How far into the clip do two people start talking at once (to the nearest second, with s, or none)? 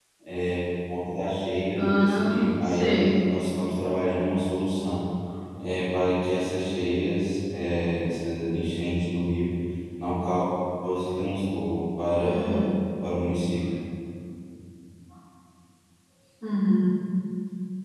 2 s